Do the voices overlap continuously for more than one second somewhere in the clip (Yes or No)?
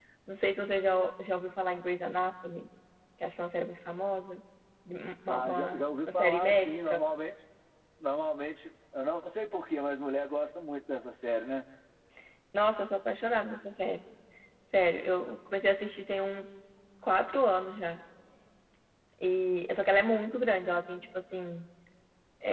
Yes